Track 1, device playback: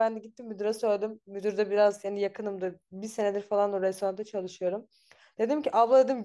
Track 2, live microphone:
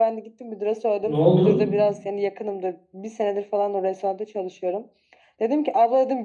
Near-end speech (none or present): present